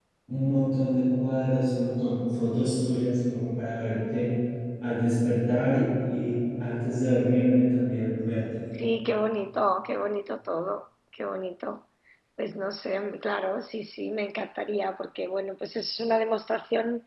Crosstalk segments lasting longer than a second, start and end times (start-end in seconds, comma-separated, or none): none